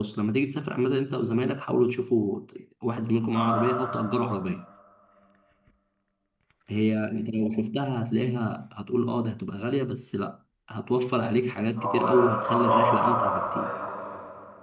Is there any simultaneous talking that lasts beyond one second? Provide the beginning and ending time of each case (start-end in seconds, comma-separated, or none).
11.8-13.7